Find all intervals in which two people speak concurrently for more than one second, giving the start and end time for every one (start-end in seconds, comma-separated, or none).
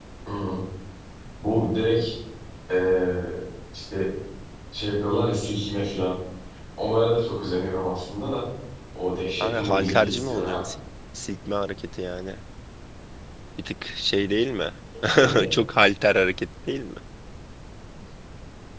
9.4-10.6